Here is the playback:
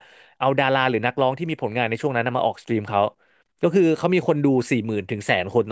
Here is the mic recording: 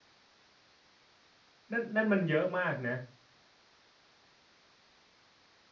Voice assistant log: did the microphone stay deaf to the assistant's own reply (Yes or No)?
Yes